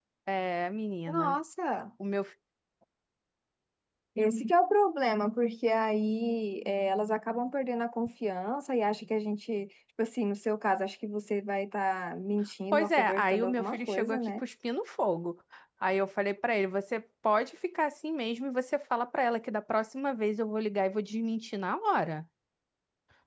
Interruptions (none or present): present